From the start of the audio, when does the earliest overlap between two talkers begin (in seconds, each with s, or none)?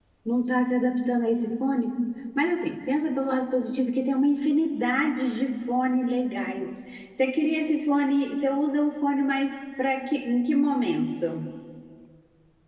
none